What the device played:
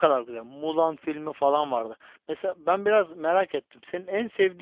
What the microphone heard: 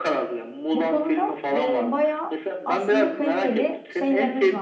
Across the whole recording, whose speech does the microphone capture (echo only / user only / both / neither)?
both